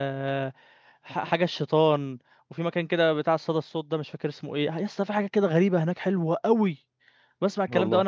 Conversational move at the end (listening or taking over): listening